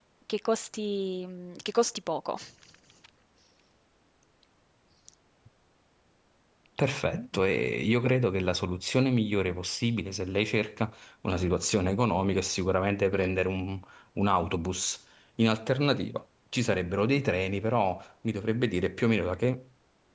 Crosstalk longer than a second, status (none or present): none